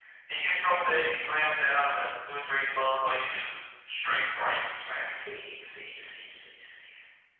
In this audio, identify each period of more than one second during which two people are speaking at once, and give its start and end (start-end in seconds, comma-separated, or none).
none